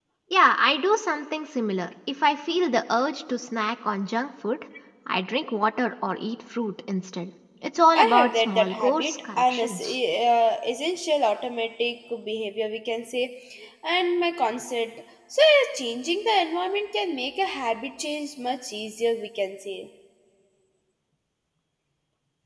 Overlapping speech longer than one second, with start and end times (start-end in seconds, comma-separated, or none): 7.9-10.0